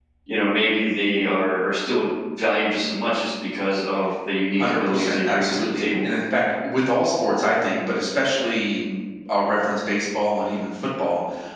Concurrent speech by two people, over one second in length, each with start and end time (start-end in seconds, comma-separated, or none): 4.6-6.0